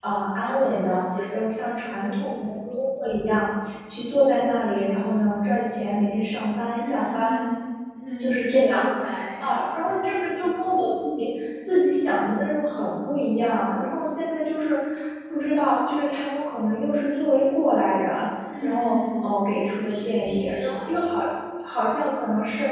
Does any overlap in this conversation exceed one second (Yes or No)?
Yes